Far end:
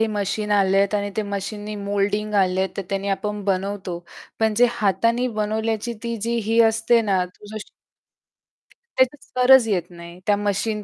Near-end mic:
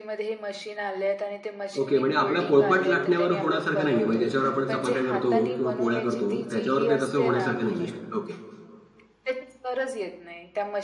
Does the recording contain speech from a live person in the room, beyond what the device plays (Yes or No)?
Yes